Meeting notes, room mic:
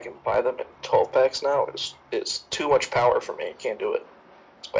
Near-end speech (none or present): none